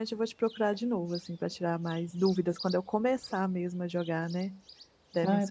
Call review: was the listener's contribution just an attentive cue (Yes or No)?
No